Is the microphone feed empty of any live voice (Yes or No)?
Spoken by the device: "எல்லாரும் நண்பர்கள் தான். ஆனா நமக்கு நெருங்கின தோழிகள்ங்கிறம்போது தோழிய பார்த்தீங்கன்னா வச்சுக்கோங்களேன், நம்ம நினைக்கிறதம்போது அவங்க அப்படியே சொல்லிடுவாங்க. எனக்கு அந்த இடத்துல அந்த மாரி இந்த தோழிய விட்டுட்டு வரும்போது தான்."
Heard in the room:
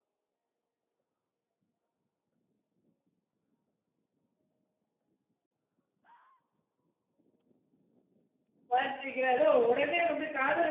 No